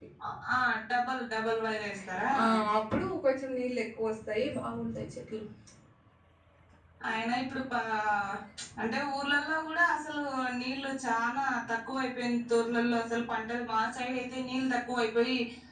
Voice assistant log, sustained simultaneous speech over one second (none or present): none